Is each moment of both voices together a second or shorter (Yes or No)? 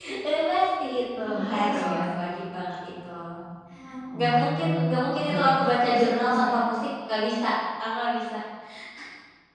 No